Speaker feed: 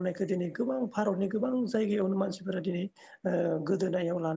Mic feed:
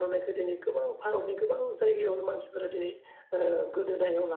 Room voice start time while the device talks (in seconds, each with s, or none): none